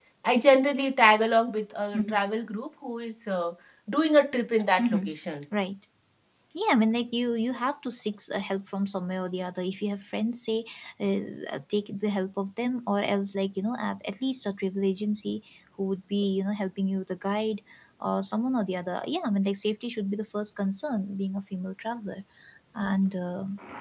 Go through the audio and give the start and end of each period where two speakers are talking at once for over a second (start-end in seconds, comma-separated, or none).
none